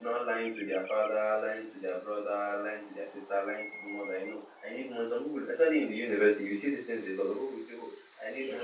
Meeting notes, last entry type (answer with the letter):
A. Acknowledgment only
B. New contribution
A